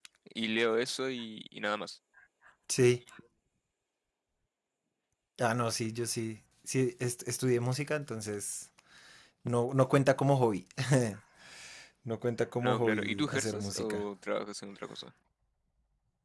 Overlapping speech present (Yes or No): Yes